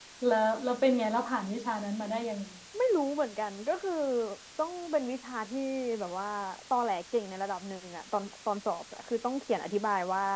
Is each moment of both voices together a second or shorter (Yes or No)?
Yes